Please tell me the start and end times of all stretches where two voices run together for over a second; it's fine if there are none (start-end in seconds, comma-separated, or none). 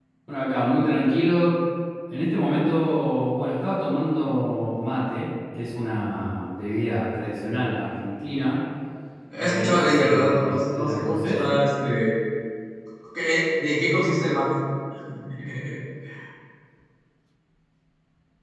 9.4-11.4